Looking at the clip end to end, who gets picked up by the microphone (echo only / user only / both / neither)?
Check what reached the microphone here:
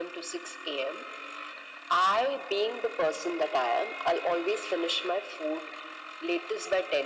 echo only